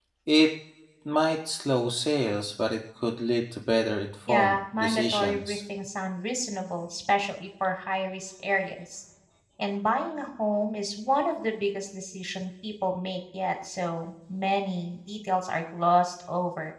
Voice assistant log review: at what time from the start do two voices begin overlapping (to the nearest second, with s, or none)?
4 s